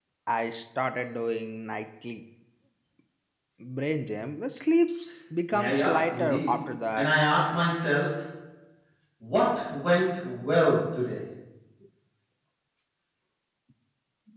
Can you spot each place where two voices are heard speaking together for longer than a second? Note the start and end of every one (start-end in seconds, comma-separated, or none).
5.5-7.1